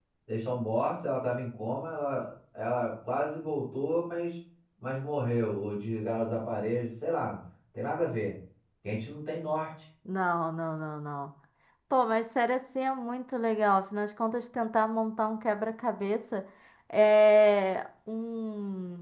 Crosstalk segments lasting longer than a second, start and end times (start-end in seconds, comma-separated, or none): none